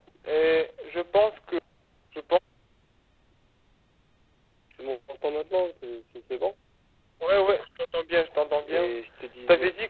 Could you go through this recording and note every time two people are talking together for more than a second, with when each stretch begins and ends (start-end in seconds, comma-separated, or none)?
none